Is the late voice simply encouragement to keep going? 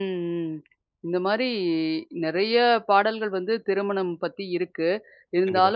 Yes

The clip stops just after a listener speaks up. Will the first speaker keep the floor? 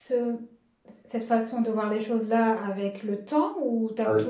No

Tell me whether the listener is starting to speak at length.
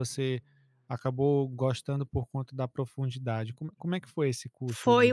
Yes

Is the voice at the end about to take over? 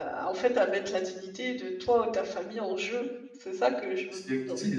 Yes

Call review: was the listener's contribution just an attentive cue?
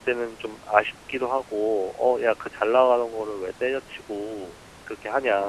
No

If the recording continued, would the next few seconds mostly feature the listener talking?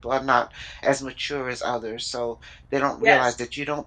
No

